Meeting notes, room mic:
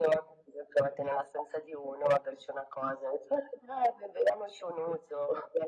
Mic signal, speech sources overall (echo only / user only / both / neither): echo only